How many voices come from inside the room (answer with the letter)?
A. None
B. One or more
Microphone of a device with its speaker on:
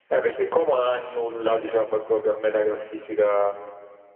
A